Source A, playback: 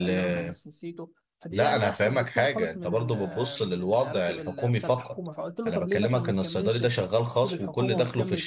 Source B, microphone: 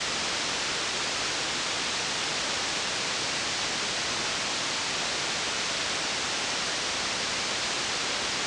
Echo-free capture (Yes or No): Yes